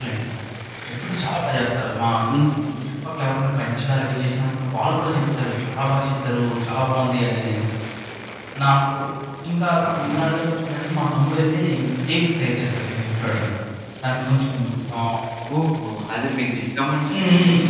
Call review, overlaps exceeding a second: none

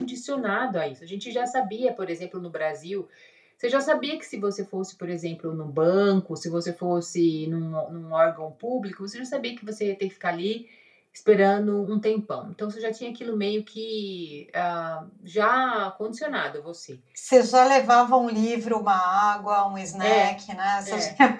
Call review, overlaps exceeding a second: none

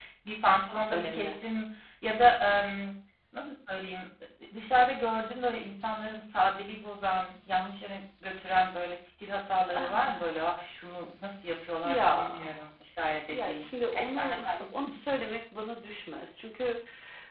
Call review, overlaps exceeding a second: present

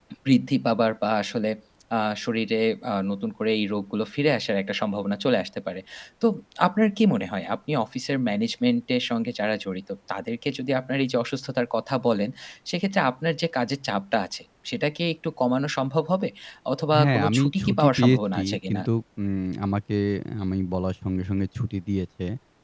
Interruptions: present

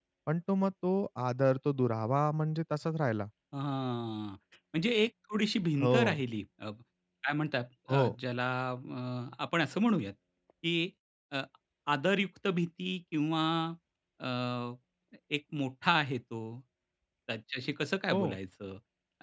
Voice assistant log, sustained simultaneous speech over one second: none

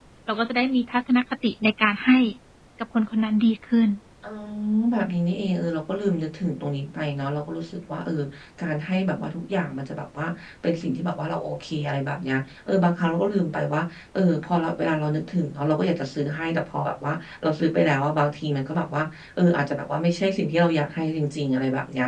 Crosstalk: none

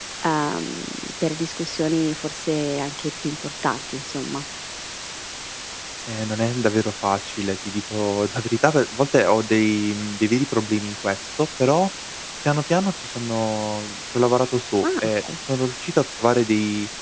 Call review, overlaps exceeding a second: none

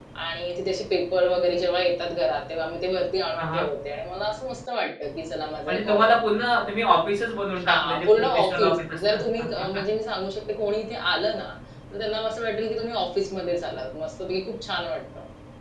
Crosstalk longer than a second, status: present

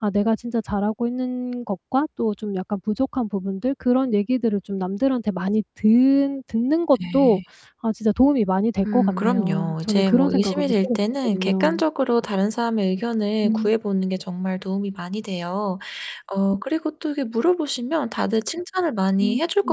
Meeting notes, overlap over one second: present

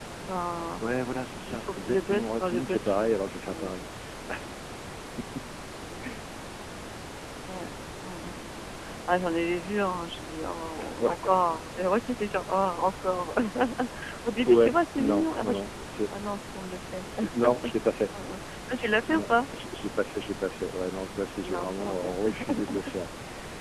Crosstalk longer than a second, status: present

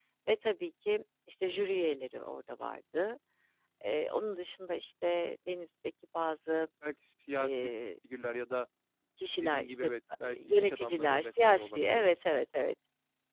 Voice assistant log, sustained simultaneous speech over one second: present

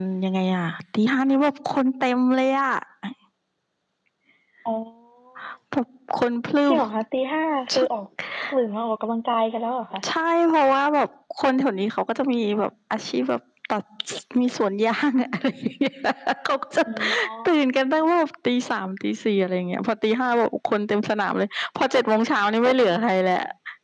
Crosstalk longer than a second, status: none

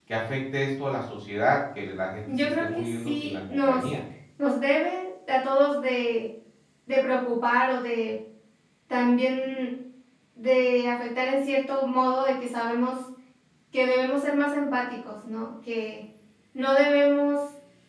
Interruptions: present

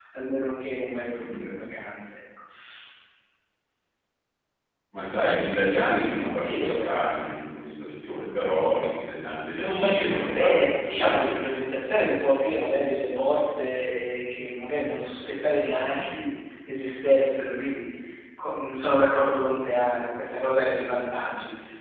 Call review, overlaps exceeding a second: present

